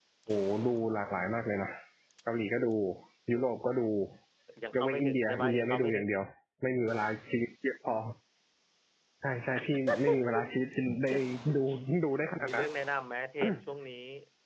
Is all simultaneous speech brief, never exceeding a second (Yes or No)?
No